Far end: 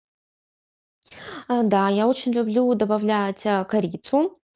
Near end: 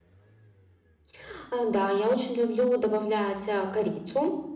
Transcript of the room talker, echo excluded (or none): none